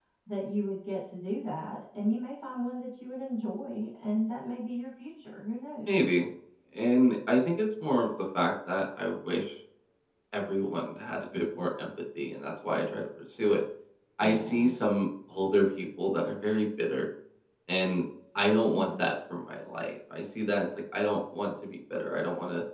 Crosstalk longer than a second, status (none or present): none